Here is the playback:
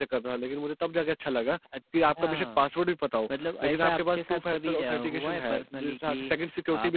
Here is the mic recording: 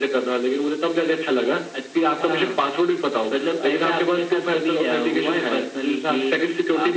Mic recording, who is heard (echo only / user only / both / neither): echo only